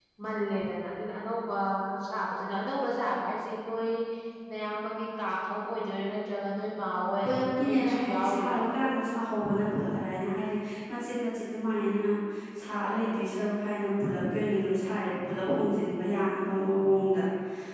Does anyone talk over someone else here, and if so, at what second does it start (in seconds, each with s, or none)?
7.2 s